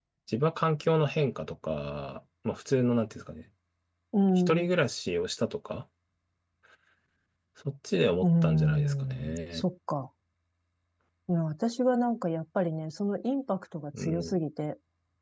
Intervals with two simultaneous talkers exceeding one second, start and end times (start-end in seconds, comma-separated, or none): 8.2-9.6